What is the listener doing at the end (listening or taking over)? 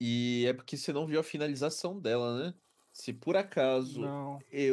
listening